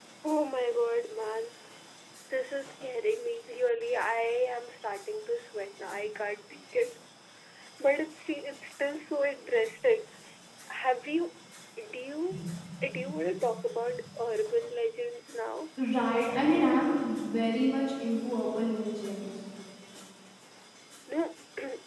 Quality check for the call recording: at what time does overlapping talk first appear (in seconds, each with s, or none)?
none